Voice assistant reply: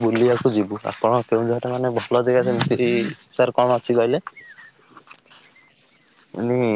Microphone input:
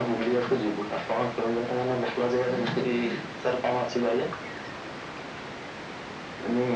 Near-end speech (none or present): none